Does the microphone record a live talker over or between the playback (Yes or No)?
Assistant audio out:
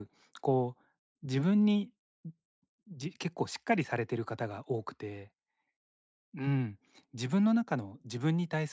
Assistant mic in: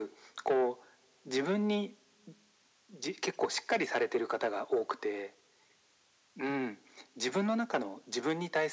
No